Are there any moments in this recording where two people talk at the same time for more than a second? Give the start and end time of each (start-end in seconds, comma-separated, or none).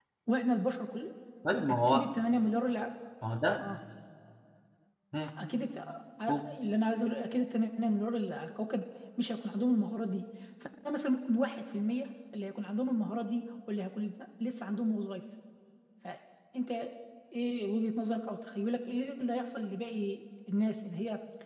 none